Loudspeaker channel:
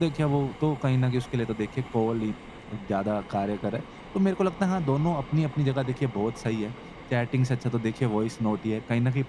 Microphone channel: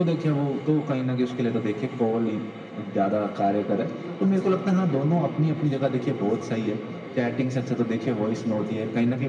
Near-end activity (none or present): present